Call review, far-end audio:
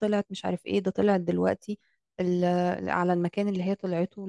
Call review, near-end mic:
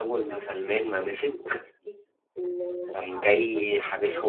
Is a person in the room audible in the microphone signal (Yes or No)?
Yes